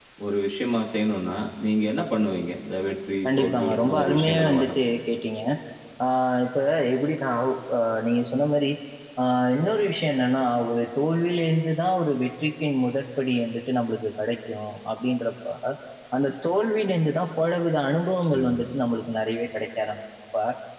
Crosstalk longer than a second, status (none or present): present